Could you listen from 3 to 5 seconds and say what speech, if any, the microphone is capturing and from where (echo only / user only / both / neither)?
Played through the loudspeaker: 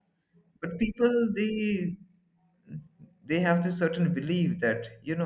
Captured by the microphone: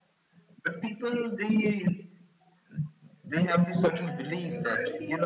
both